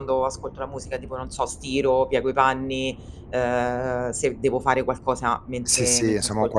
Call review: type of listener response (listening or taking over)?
taking over